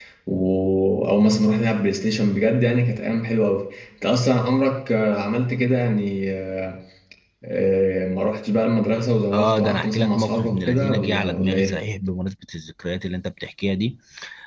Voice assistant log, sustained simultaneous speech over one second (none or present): present